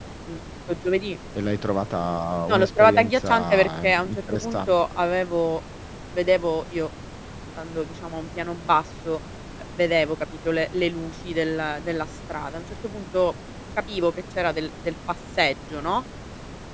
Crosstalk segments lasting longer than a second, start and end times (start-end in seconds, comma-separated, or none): 2.5-4.7